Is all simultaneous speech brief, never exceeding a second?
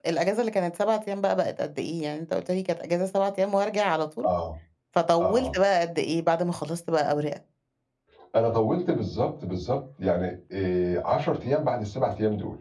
Yes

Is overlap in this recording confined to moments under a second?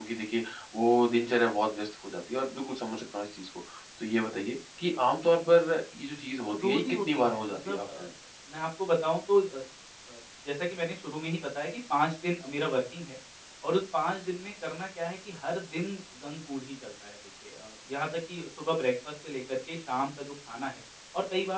No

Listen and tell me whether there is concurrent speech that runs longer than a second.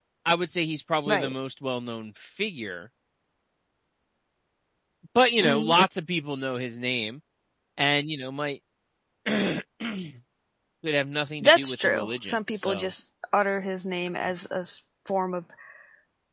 Yes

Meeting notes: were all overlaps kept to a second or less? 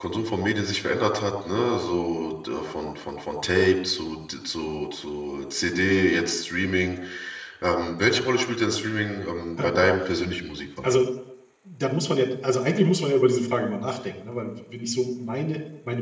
Yes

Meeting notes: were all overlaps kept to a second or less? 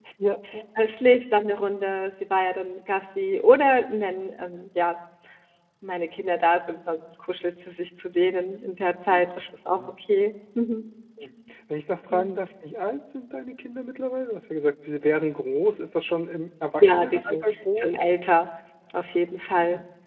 No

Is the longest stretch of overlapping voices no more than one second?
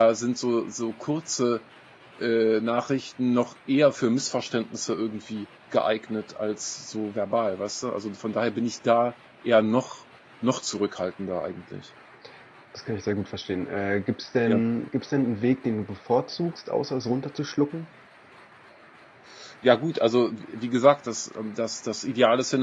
Yes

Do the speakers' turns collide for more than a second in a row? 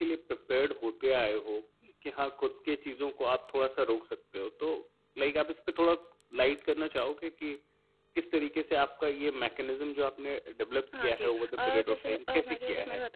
Yes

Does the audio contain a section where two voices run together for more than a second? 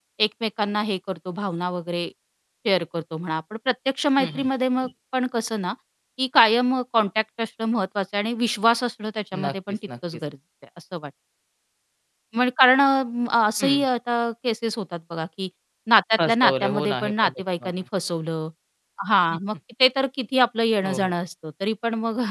Yes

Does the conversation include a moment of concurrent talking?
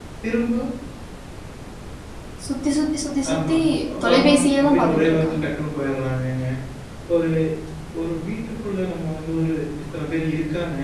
Yes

